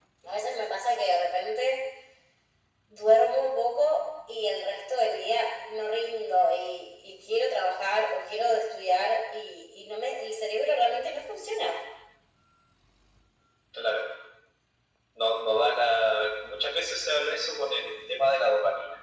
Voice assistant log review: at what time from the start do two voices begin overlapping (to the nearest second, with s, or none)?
none